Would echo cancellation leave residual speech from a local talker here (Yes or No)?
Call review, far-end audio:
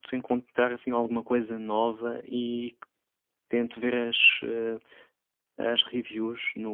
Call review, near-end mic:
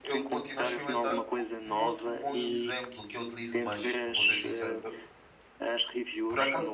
Yes